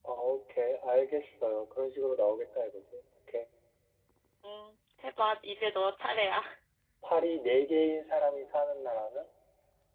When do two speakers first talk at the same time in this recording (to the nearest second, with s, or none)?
none